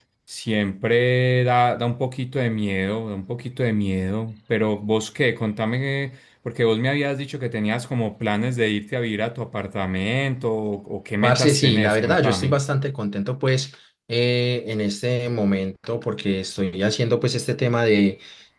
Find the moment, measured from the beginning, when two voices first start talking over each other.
11.2 s

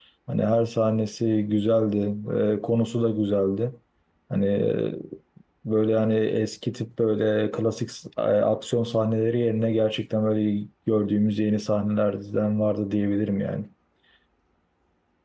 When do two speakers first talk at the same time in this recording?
none

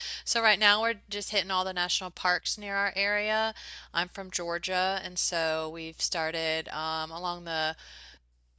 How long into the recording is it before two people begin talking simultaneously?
none

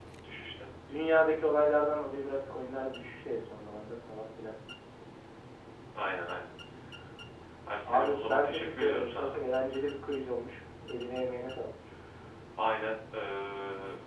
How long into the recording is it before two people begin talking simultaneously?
7.8 s

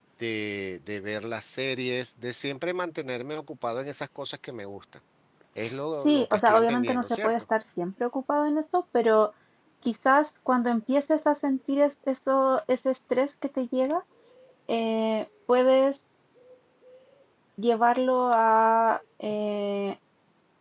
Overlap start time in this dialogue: 6.0 s

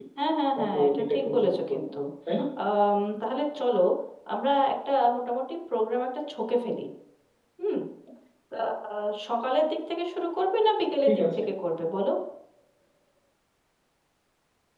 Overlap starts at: 0.6 s

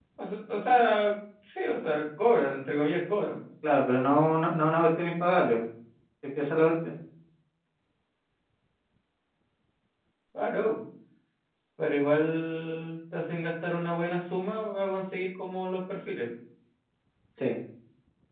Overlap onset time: none

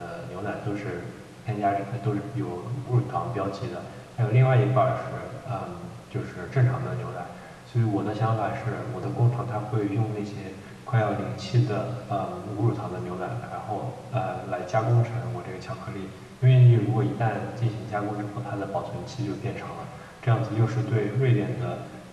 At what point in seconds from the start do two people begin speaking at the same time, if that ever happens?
none

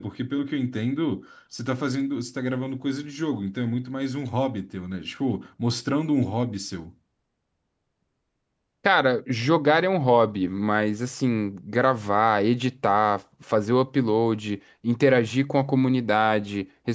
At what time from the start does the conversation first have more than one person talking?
none

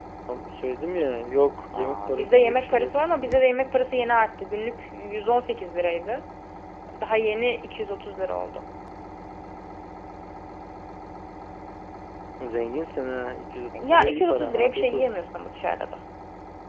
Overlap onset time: 1.7 s

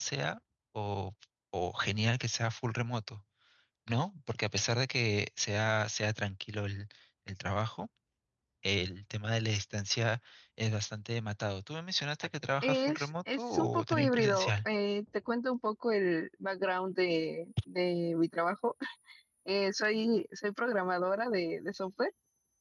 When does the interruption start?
12.6 s

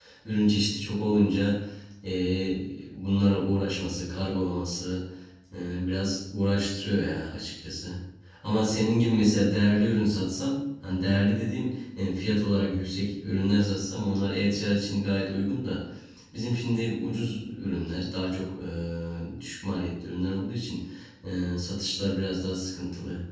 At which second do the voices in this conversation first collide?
none

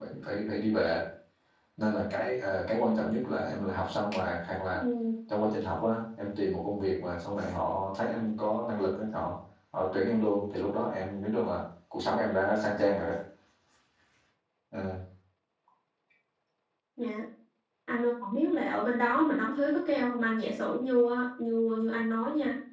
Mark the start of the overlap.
none

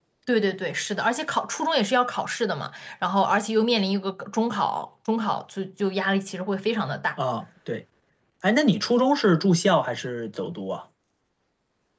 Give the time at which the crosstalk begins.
none

